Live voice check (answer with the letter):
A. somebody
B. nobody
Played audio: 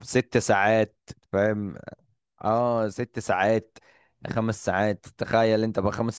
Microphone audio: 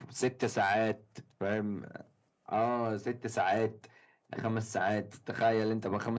B